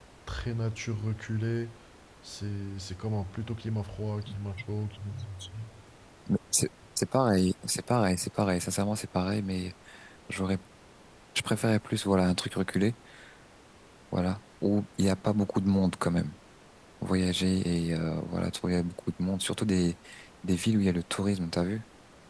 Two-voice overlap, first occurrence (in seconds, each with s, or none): none